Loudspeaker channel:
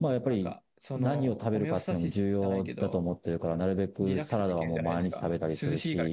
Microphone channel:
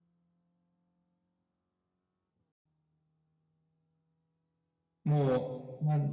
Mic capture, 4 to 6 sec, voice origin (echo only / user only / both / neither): user only